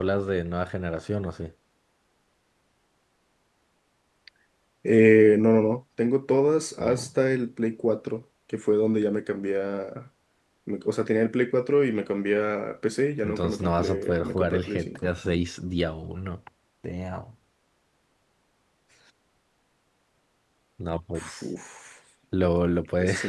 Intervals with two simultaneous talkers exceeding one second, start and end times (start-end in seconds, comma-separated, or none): 13.2-15.0